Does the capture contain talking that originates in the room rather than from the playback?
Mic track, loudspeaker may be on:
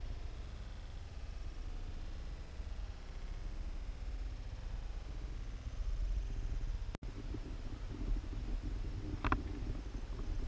No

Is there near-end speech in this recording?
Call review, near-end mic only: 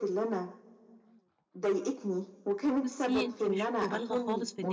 Yes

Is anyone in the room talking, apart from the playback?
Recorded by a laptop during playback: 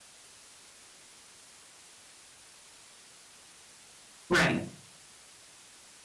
Yes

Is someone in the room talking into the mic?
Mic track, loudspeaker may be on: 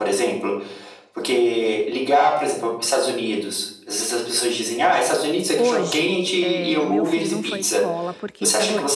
Yes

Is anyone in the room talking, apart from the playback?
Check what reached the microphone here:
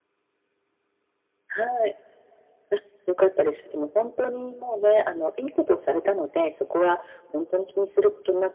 No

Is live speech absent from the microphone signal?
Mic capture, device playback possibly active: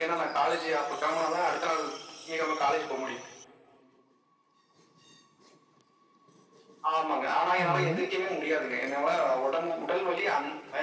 No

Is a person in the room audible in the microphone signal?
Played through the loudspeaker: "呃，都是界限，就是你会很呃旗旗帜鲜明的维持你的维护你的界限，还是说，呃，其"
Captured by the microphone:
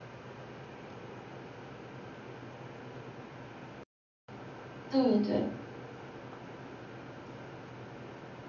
Yes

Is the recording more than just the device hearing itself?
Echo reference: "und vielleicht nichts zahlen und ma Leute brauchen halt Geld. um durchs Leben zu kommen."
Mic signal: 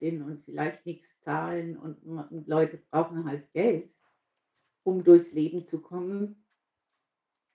No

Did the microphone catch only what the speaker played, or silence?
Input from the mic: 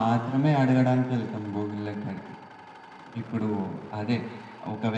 Yes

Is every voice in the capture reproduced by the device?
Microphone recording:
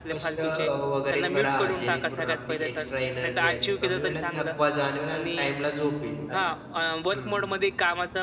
No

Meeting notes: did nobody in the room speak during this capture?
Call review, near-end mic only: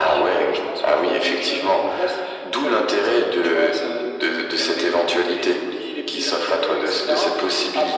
Yes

